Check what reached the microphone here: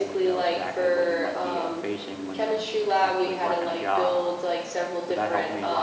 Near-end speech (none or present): present